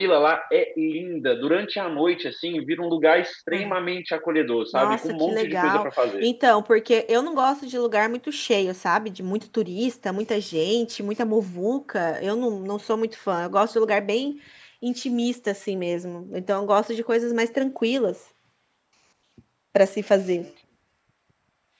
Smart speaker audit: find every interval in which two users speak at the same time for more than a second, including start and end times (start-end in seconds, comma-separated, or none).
4.7-6.2